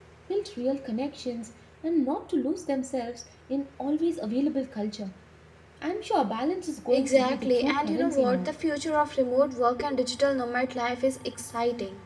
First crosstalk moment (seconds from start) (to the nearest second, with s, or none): 7 s